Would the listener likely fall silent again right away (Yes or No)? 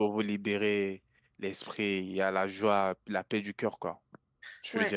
No